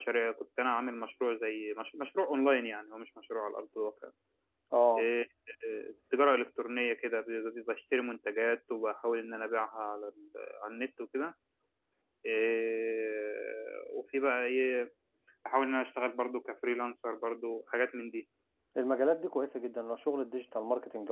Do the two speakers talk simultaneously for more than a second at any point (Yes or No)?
No